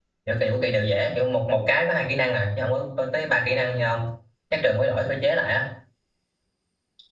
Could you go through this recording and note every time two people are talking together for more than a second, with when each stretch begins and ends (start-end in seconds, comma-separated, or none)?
none